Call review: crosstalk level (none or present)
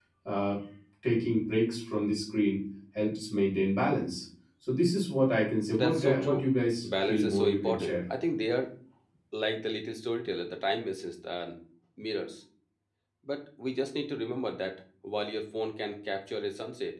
present